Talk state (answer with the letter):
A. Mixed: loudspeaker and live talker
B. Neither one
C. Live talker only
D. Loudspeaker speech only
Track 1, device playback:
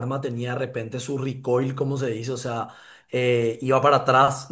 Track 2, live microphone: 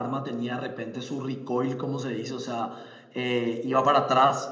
D